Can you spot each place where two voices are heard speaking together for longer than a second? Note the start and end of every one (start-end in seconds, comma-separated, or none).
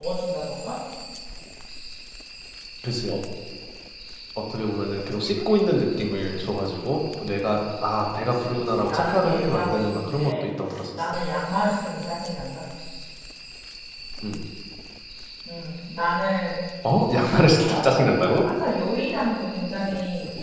8.1-10.5, 17.2-18.5